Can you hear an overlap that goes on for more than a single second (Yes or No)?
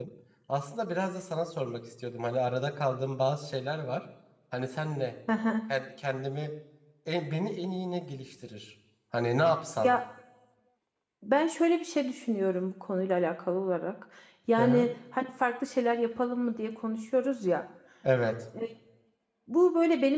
No